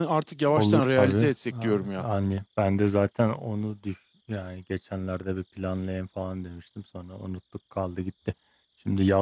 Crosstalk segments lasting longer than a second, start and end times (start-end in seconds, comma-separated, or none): 0.5-2.0